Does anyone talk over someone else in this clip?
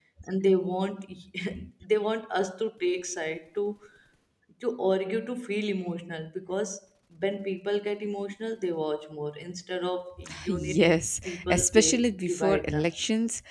Yes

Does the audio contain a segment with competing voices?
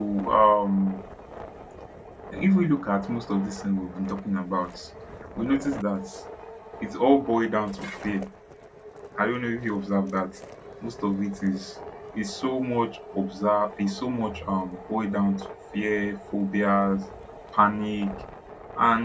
No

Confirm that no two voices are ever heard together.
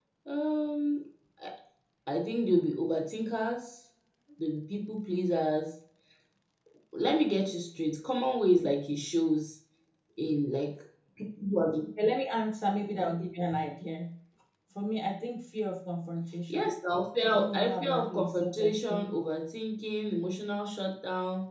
No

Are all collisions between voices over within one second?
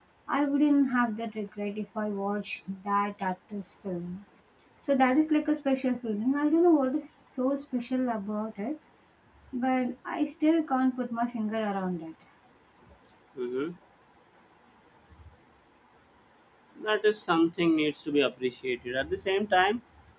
Yes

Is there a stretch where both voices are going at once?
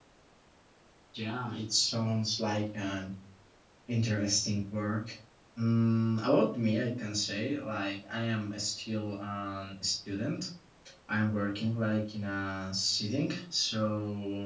No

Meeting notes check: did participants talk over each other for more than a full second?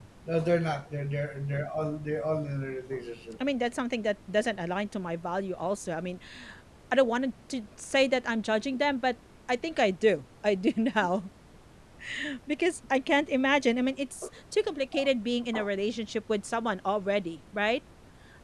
No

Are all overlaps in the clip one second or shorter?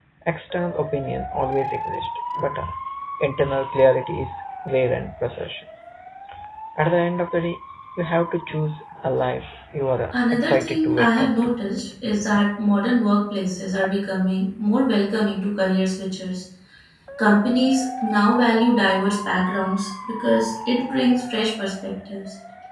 No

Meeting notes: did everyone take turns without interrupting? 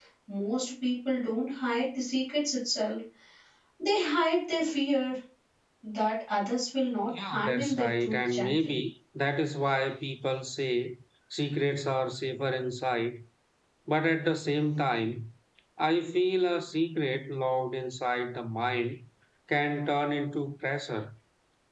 No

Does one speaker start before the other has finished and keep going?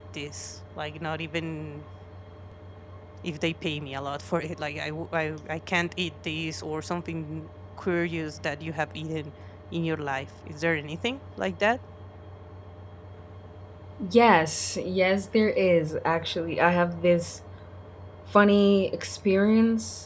No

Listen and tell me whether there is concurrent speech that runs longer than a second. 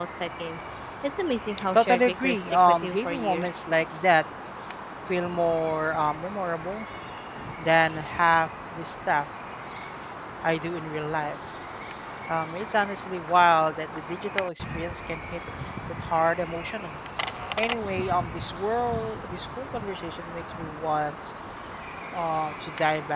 Yes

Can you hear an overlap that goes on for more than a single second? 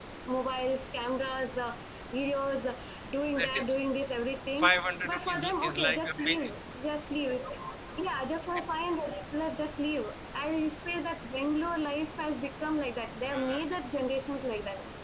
Yes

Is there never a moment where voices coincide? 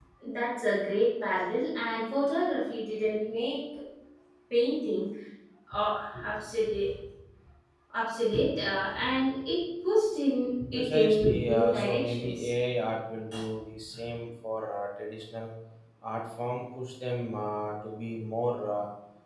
No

